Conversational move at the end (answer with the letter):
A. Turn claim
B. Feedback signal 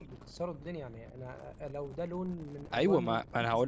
A